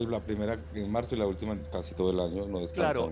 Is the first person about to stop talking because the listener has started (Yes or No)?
Yes